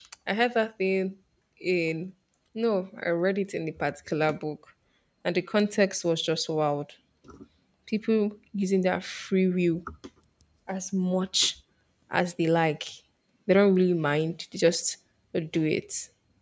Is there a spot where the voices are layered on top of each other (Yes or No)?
No